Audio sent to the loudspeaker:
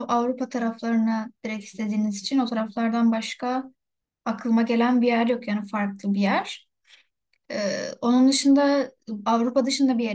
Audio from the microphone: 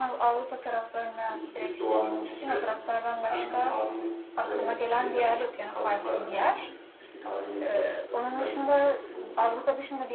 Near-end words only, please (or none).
yeşillik doğanın içinde hem de tarihi olarak şeyler çok hani kalıntılar da demeyeyim de eski tarihi yapılar çok zaten İtalya çok dikkat ediyor o konuya ama